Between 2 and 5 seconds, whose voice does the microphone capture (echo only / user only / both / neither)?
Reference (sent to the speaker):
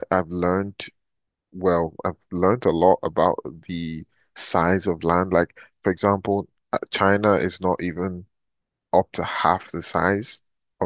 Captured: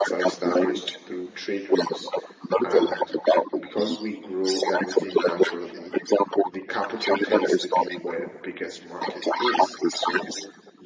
both